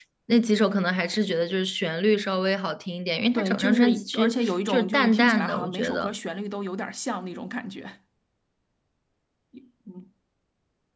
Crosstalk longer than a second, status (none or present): present